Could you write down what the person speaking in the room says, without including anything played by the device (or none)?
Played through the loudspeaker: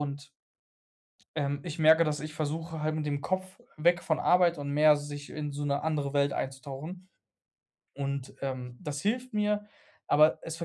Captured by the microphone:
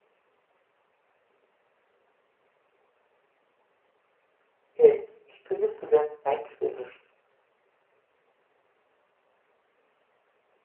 Okay, wie findest du denn rein theoretisch